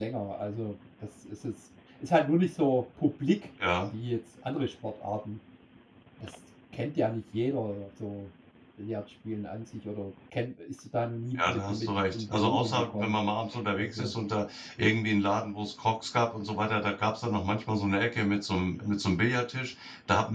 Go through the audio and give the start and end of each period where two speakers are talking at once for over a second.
11.4-13.2

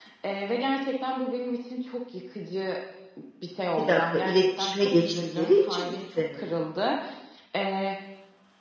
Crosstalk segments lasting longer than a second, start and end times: 3.8-6.4

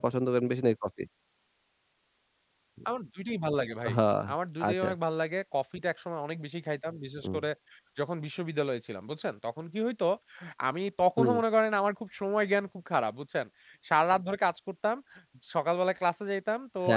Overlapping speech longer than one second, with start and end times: none

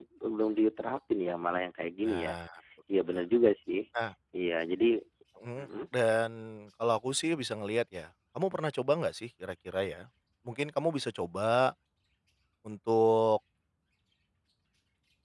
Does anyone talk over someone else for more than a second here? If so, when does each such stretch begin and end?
none

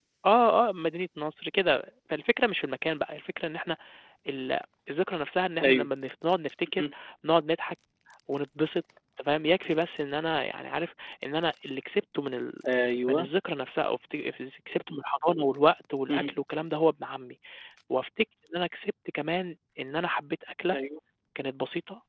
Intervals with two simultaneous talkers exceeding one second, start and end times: none

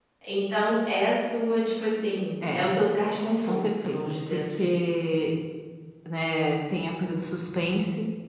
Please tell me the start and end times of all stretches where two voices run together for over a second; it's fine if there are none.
3.5-4.7

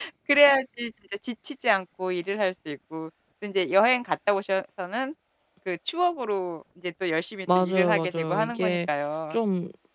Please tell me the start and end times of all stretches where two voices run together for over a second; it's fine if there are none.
7.5-8.8

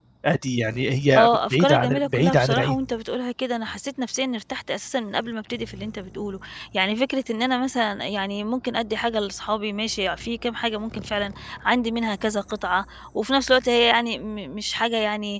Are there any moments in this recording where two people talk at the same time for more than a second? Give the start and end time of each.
1.2-2.8

